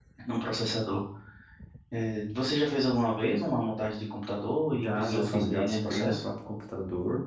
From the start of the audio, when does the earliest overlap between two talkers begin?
4.7 s

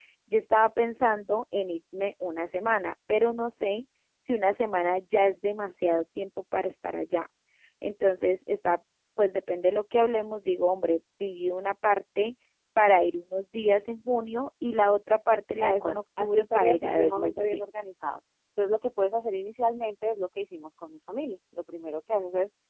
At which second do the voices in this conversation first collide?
15.6 s

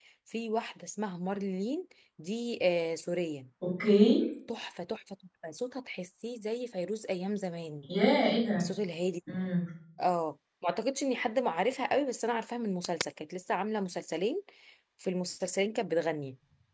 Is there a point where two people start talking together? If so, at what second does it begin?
none

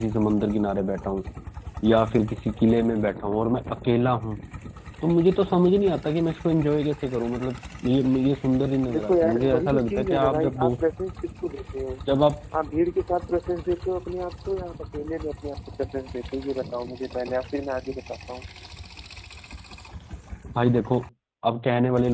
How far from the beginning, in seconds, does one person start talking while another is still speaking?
8.9 s

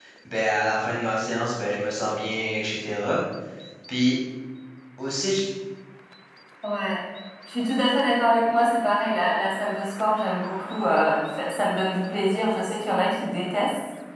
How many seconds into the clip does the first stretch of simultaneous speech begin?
none

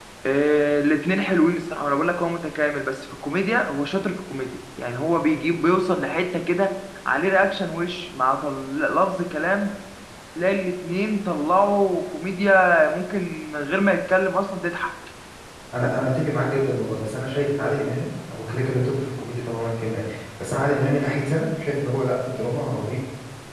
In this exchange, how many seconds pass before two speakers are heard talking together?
none

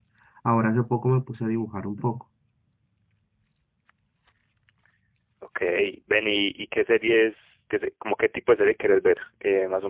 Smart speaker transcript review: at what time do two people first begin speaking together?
none

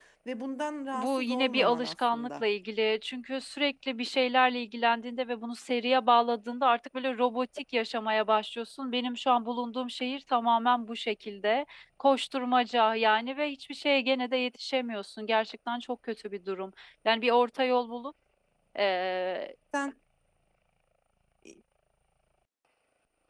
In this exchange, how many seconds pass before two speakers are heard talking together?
0.9 s

